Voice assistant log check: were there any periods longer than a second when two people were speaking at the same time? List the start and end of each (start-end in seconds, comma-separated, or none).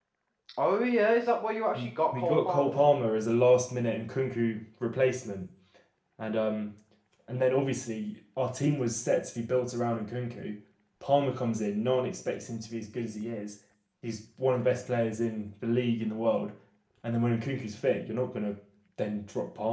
1.8-3.1